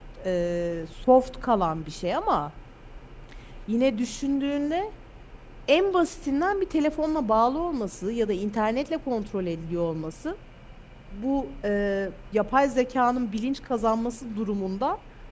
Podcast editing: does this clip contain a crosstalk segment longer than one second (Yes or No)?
No